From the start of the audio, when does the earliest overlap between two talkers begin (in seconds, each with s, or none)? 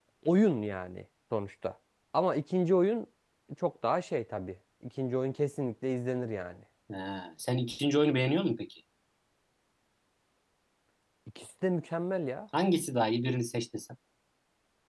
none